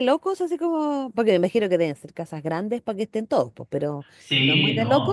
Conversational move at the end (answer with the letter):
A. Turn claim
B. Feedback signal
A